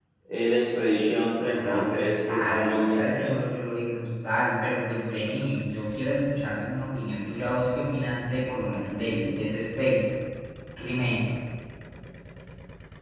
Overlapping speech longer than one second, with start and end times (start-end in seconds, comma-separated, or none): 1.5-3.3